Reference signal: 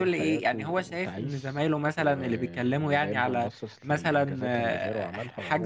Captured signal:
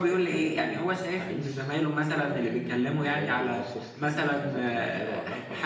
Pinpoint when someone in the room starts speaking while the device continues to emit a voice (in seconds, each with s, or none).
none